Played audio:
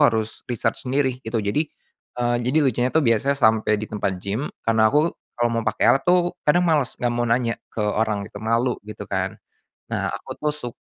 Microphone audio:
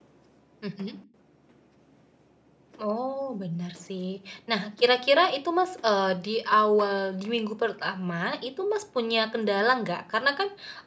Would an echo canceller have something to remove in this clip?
No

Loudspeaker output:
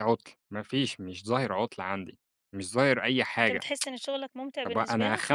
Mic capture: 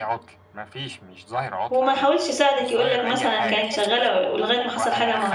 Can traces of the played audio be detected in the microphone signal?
Yes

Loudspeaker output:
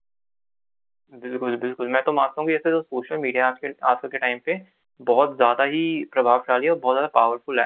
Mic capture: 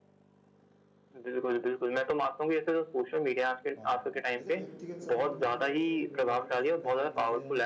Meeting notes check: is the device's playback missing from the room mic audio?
No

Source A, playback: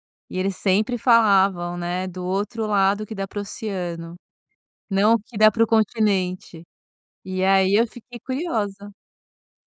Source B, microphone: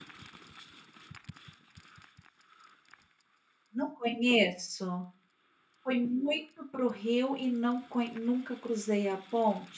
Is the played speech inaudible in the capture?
Yes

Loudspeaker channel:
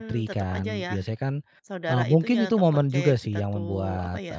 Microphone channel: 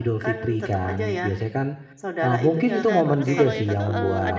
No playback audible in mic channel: No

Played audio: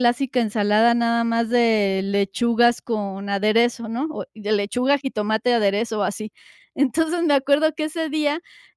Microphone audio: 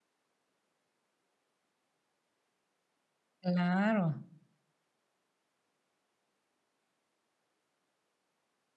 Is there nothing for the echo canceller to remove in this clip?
Yes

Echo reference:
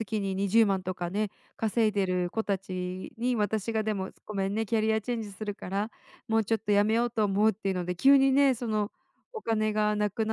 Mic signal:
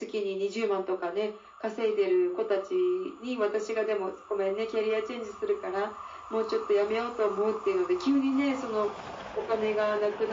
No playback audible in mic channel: No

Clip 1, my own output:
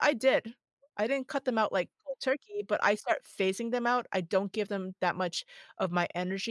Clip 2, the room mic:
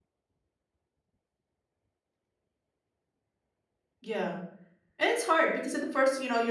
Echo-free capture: Yes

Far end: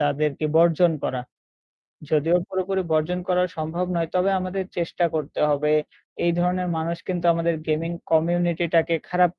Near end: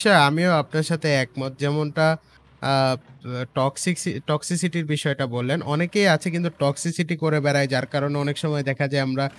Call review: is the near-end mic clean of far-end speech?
Yes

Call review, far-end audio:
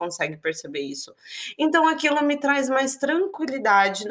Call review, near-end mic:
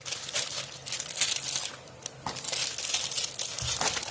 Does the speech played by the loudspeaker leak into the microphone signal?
No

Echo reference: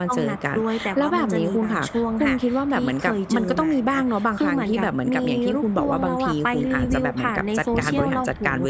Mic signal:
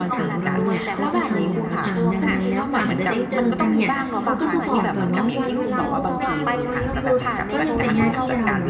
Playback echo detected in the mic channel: Yes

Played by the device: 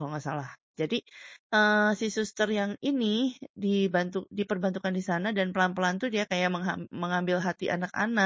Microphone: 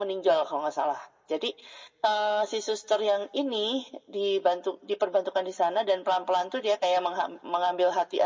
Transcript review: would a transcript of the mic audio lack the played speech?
No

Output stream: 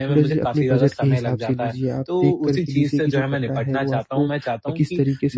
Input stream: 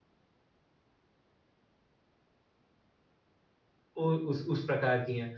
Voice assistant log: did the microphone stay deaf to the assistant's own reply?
Yes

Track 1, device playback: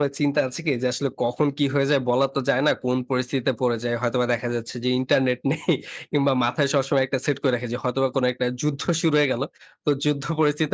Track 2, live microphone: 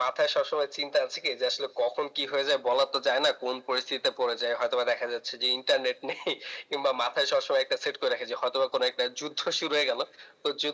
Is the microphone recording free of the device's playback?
No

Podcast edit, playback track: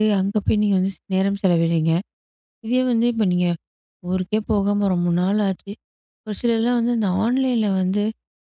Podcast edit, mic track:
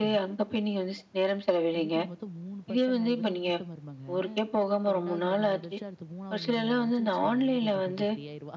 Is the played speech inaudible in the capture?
No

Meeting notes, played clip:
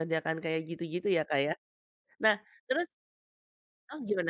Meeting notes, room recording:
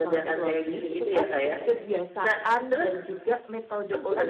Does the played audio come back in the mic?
Yes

